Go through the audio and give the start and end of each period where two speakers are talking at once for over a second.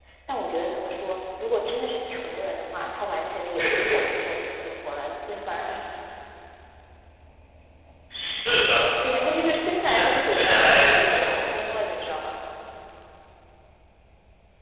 9.8-11.3

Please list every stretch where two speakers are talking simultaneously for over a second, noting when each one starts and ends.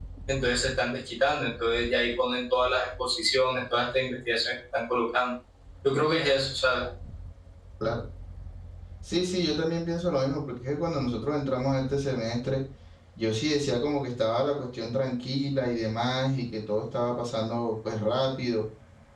none

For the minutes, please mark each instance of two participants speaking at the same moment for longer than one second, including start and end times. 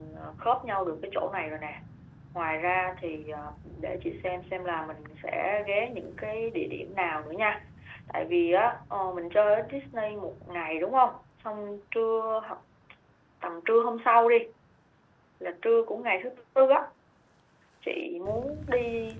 none

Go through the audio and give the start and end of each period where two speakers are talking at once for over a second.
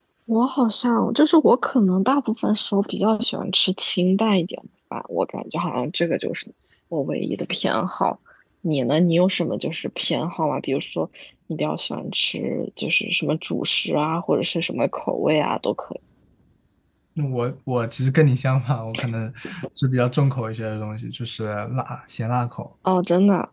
none

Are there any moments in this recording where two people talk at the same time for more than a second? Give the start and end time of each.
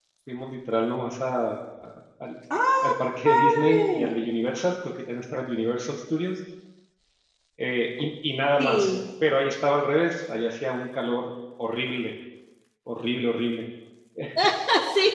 2.8-4.2

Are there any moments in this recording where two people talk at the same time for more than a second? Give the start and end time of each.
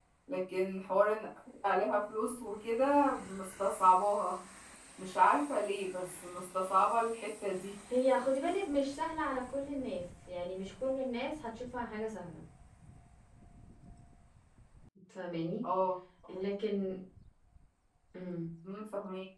none

